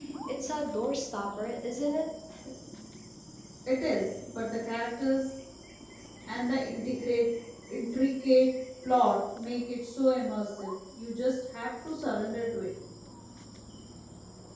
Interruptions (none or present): none